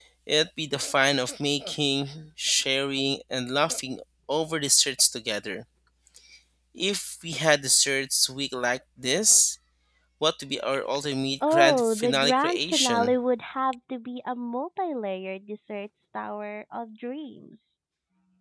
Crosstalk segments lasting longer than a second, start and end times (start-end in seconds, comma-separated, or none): 11.5-13.1